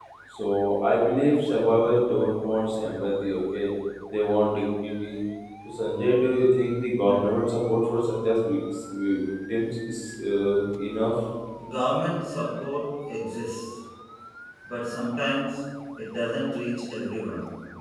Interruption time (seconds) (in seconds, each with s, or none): none